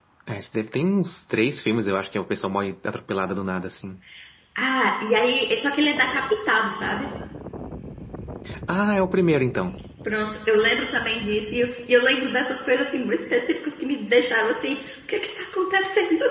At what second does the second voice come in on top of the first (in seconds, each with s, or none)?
none